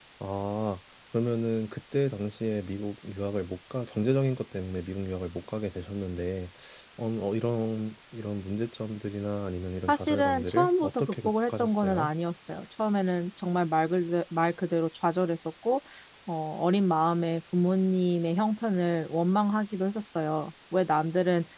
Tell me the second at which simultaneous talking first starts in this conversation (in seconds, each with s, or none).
9.9 s